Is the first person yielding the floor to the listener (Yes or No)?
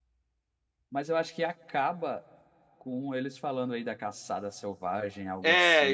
Yes